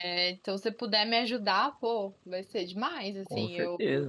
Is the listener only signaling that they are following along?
No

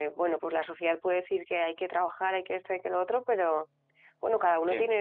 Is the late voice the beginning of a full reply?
No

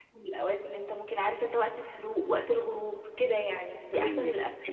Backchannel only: No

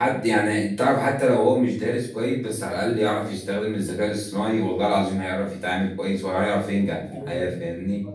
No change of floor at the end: No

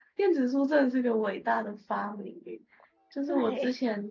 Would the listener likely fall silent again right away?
Yes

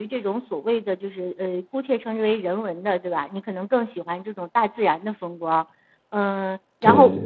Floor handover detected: No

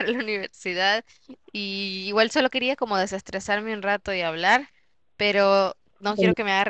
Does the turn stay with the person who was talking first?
Yes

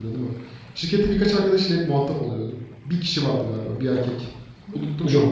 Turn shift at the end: Yes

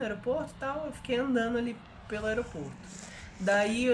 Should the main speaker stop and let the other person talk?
No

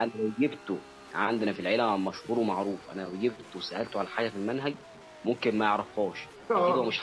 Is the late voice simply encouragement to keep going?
Yes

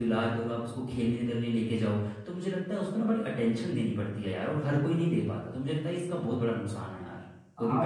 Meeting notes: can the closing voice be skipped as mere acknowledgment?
No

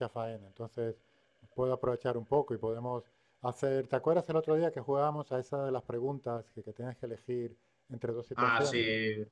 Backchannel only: No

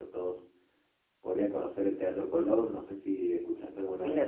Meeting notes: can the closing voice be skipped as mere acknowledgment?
No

